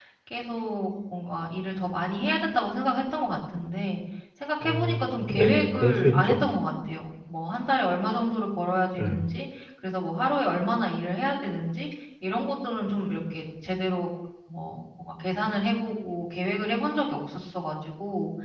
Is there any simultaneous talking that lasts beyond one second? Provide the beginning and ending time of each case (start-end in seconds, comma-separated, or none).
4.6-6.4